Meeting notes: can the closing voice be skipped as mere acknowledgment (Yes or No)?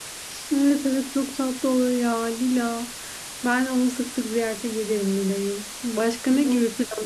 Yes